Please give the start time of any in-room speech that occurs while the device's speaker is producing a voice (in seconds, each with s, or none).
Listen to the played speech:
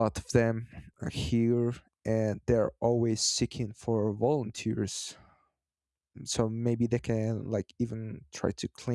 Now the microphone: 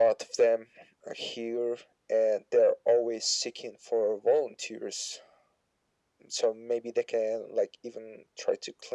none